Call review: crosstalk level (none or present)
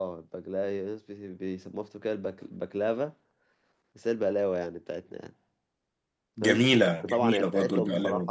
present